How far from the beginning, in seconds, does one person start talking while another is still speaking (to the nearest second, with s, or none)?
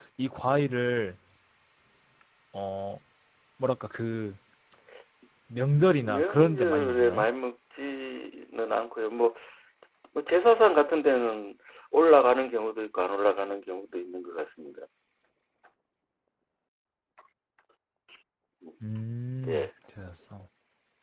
6 s